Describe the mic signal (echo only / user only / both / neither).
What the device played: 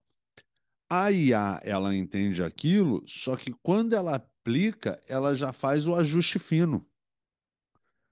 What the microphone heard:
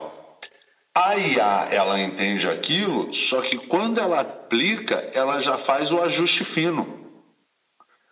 echo only